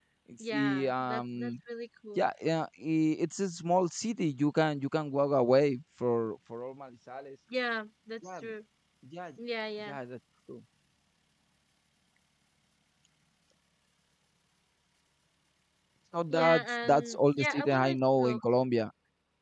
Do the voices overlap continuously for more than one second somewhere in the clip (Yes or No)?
Yes